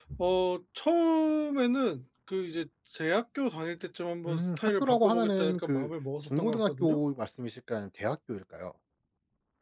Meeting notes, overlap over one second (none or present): present